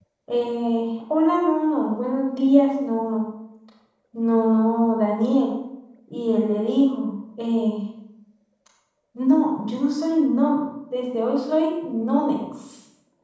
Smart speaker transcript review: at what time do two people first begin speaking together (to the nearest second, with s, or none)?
none